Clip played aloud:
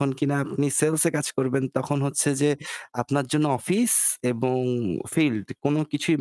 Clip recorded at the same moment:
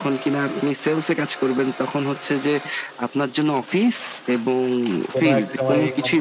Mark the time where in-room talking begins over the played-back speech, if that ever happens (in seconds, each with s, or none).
5.1 s